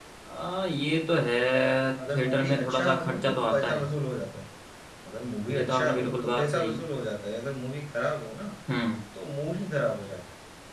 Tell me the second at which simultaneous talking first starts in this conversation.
2.1 s

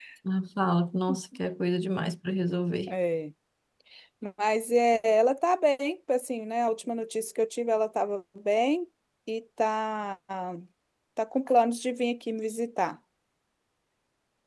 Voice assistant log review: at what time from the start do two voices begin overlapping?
none

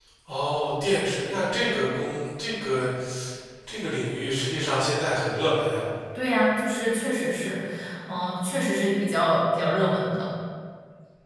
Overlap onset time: none

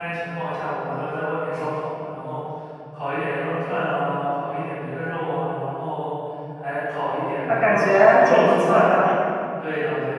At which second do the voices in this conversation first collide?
7.5 s

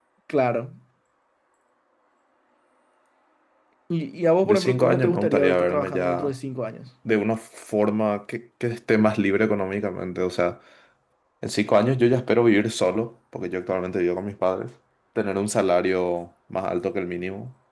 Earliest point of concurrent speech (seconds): 4.4 s

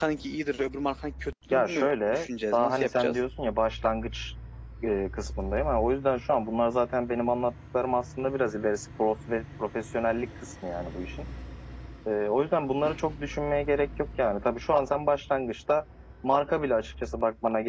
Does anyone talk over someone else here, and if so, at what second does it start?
1.5 s

